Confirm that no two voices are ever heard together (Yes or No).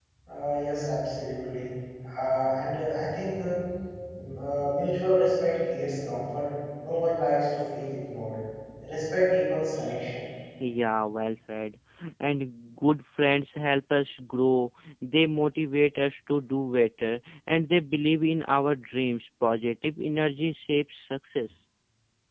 Yes